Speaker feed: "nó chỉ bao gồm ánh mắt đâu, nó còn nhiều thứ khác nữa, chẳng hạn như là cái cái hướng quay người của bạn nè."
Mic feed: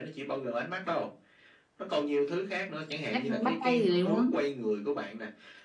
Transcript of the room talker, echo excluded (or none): cách bắt tay gì đấy, đúng không?